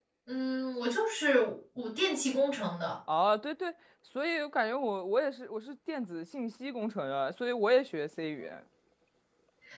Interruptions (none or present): none